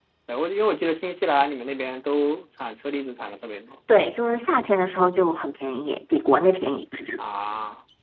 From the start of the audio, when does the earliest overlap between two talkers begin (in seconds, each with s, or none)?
none